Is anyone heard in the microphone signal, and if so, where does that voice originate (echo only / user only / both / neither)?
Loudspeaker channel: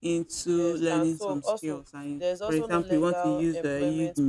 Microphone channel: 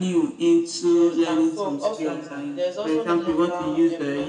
both